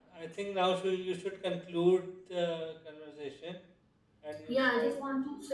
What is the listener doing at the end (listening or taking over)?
taking over